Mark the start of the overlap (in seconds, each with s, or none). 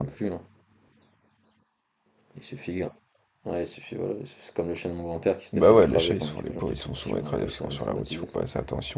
5.5 s